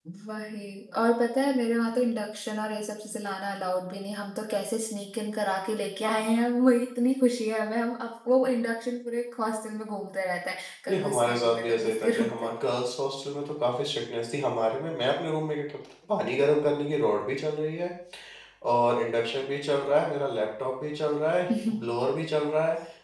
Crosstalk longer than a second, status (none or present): present